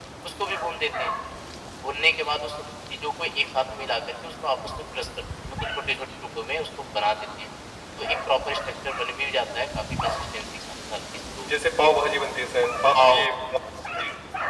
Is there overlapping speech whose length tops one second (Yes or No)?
No